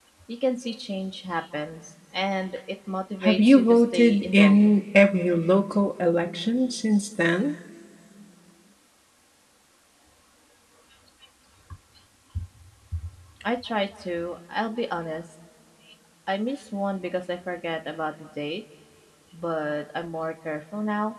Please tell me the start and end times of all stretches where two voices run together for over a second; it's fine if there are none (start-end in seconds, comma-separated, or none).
3.2-4.7